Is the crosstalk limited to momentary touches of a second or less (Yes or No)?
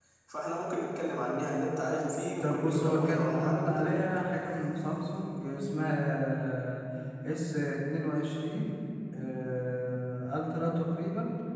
No